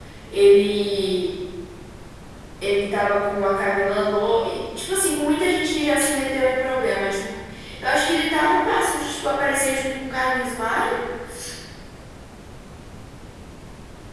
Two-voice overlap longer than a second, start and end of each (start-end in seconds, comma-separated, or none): none